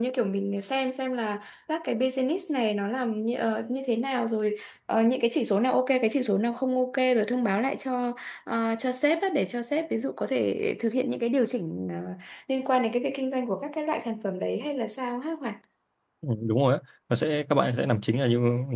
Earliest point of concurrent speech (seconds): none

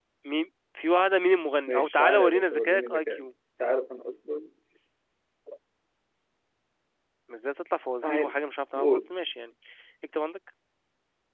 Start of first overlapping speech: 1.7 s

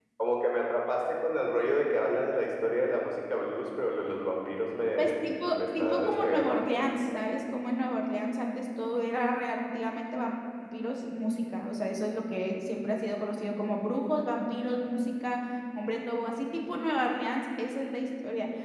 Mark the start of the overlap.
5.0 s

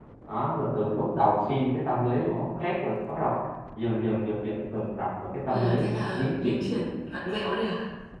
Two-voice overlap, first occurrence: 5.5 s

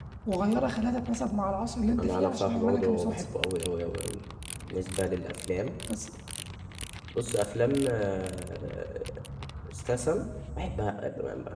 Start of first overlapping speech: 1.9 s

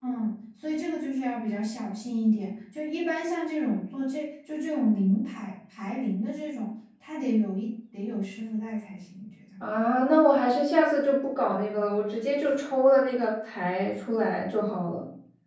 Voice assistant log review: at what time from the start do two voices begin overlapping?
none

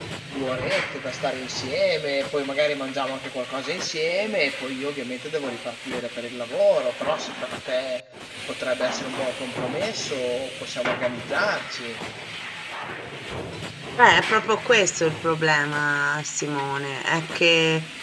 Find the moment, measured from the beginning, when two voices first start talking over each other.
none

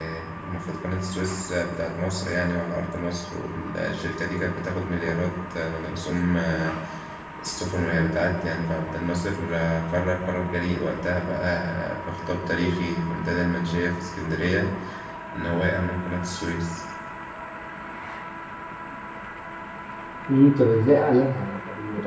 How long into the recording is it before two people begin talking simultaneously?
none

